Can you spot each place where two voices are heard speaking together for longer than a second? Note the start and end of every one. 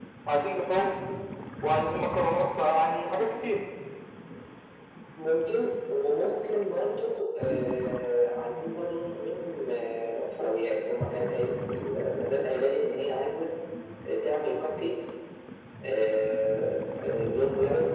none

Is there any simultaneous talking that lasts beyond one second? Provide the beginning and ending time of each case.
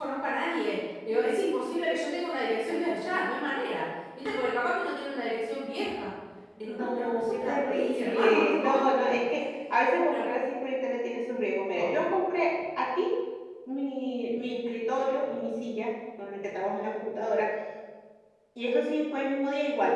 6.6-8.5

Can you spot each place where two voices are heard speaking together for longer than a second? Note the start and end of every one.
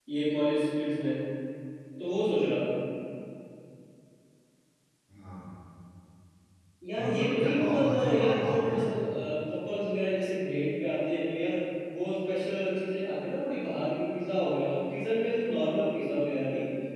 7.0-8.8

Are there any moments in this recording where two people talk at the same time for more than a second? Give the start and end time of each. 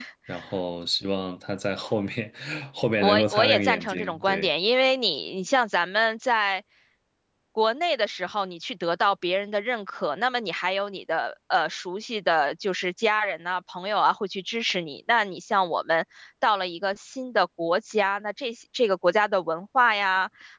3.0-4.5

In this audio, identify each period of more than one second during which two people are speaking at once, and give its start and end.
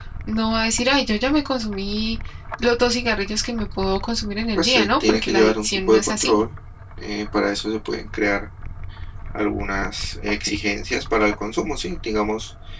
4.6-6.4

